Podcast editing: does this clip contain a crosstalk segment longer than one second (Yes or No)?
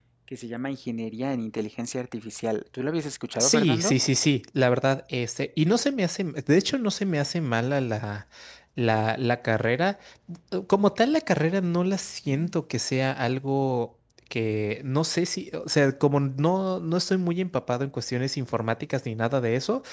No